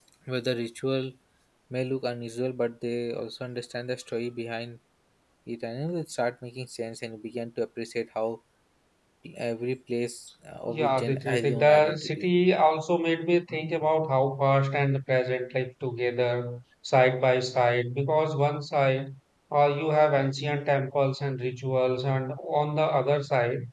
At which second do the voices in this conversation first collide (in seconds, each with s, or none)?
10.7 s